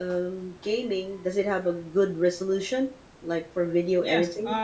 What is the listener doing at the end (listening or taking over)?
taking over